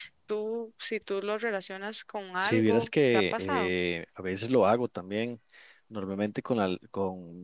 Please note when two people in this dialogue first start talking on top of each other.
2 s

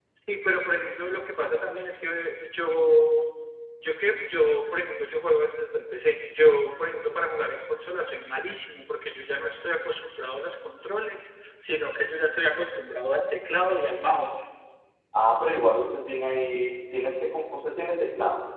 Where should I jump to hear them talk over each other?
none

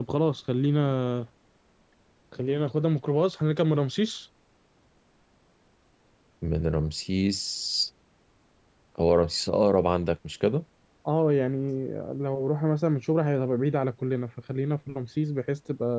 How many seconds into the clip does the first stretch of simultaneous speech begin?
none

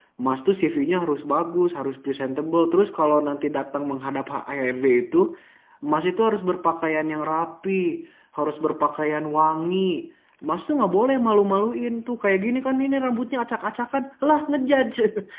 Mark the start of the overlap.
none

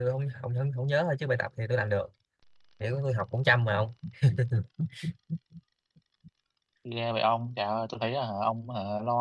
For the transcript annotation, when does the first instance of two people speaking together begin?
none

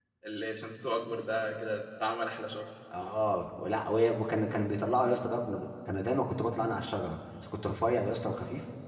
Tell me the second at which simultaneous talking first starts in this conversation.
none

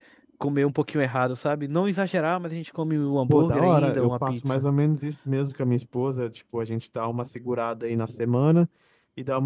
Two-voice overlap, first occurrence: 3 s

